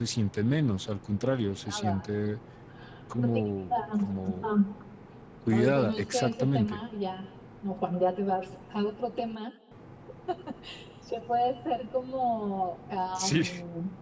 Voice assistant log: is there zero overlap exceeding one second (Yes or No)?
No